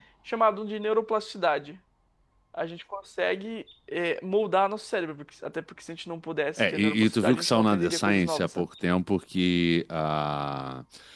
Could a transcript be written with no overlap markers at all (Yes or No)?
No